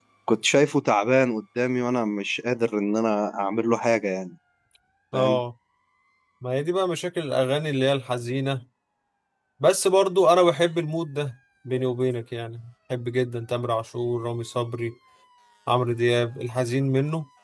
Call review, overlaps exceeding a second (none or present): none